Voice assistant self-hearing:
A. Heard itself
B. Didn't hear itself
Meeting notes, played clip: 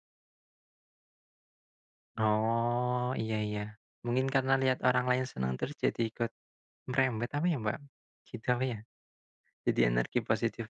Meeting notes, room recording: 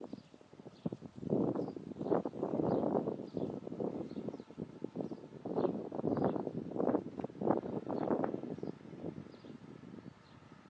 B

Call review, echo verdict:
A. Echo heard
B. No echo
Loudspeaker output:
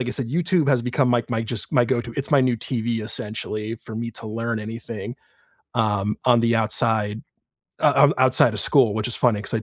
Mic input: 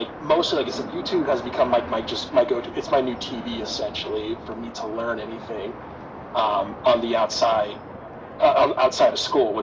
A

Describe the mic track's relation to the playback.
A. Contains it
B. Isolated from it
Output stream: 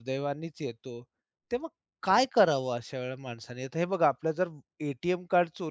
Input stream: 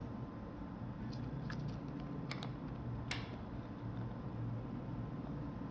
B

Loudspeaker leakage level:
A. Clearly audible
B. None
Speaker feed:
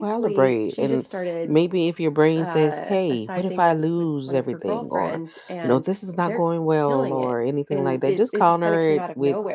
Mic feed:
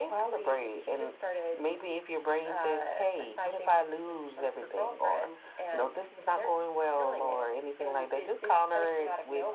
A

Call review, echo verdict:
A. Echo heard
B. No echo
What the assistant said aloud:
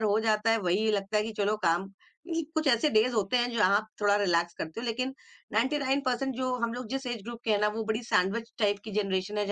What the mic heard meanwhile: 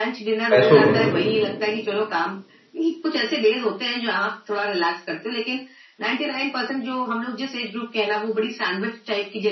A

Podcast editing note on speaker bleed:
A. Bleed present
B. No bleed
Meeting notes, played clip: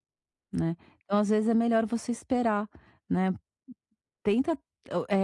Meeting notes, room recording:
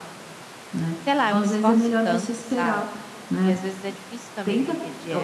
A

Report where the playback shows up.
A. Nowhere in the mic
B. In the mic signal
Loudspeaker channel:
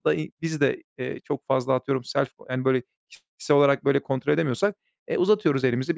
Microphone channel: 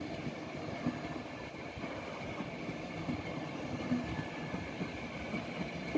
A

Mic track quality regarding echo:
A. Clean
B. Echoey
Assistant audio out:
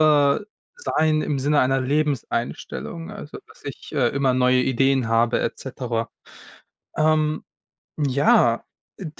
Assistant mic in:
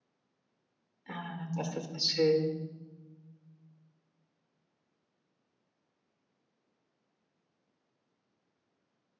A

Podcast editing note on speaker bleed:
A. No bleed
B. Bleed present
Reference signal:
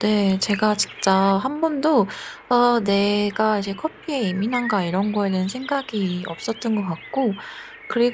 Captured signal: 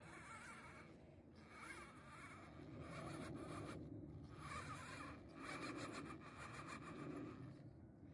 A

